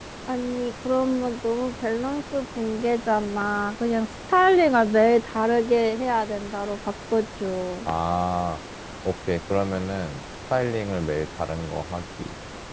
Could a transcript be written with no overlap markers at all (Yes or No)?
Yes